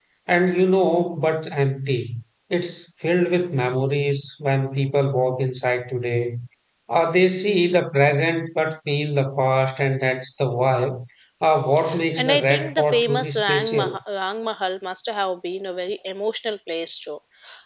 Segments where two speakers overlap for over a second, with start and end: 12.2-14.0

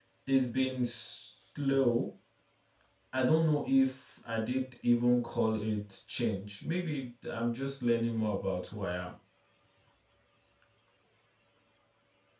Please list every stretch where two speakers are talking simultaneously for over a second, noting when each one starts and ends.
none

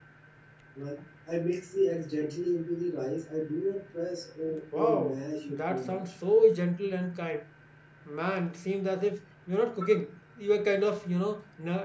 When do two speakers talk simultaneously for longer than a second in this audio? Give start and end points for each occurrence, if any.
4.7-6.0

